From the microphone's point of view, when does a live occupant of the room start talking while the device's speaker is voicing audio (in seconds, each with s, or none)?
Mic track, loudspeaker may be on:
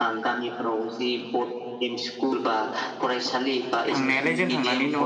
3.9 s